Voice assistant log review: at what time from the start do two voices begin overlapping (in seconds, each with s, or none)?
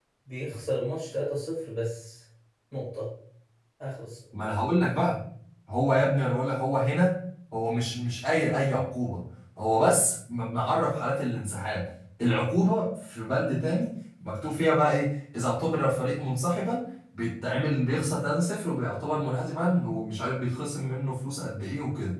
none